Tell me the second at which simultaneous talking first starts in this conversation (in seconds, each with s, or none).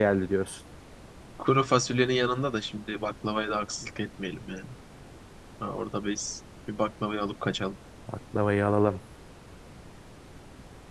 none